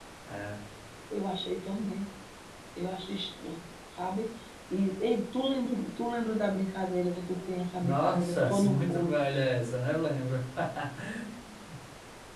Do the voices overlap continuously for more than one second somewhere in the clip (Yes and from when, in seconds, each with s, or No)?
Yes, from 7.8 s